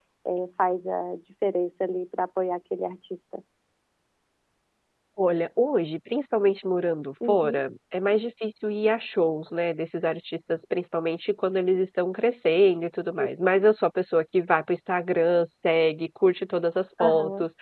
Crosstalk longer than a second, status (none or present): none